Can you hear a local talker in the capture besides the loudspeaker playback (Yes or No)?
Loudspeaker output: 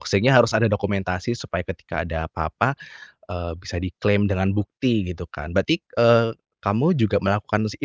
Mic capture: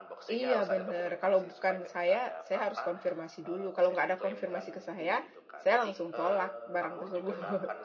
Yes